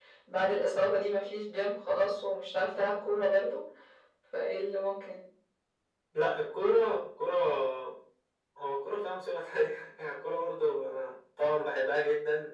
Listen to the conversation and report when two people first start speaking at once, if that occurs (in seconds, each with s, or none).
none